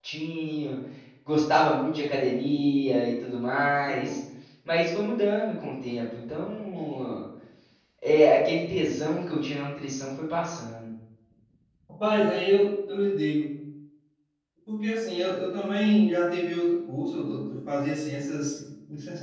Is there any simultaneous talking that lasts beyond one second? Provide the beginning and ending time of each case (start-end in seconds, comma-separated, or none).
none